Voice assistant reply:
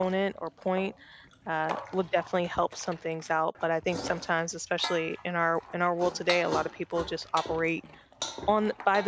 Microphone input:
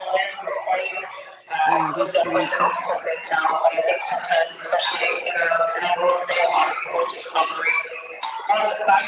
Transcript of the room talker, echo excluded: Yeah, that's great.

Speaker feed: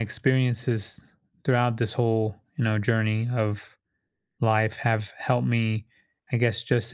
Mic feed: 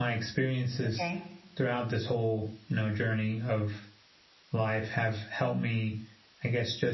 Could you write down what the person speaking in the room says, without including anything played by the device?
Okay,

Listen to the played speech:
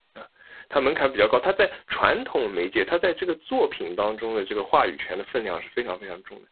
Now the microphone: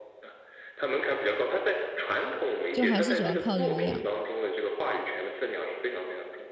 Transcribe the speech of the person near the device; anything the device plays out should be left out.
就还是主要靠流量。

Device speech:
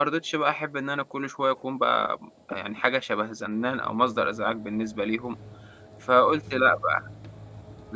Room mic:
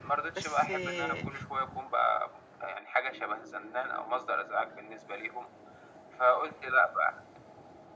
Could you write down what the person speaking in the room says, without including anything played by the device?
بس آه،

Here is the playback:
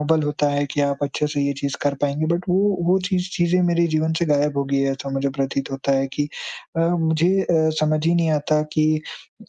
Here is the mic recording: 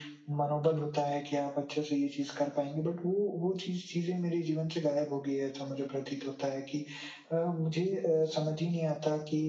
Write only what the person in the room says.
none

